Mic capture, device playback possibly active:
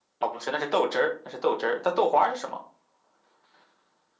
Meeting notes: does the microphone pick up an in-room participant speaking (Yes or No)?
No